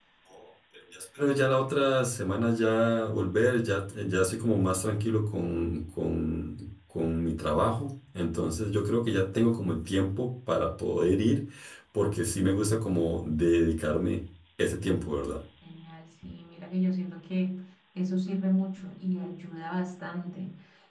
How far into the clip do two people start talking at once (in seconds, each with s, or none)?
none